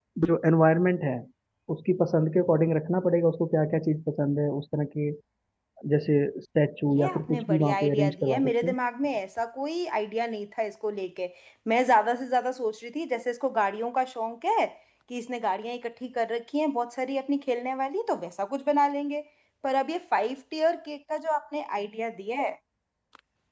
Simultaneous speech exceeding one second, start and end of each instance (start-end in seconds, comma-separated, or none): 6.9-8.8